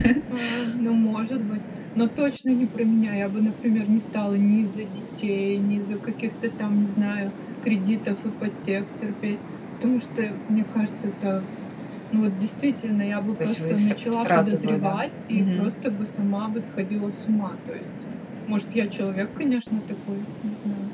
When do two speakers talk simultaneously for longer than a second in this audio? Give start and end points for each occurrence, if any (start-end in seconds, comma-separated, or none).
13.4-14.9